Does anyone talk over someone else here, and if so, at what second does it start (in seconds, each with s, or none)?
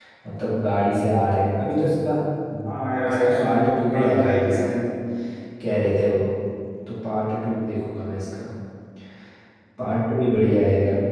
2.6 s